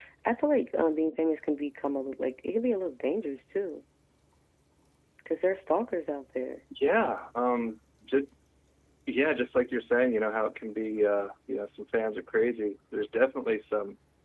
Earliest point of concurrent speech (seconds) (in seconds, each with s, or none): none